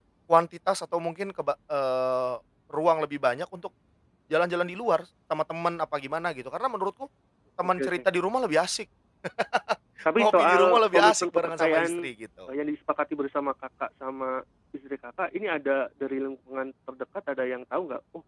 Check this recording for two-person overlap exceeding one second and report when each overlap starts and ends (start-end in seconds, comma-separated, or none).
10.2-12.1